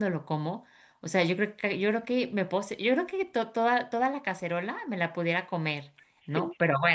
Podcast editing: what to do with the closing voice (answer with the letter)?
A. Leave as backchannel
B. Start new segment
A